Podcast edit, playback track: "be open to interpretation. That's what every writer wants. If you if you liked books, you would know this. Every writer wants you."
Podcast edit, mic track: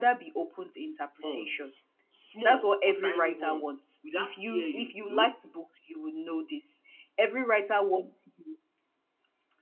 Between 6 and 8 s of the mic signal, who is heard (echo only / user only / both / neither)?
echo only